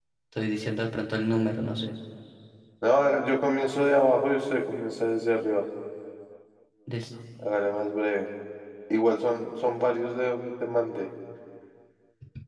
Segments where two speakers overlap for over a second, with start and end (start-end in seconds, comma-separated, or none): none